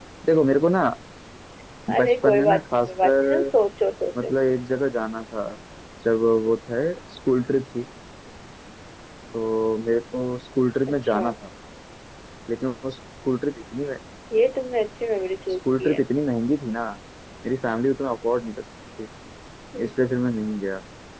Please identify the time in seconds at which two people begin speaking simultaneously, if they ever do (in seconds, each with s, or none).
1.9 s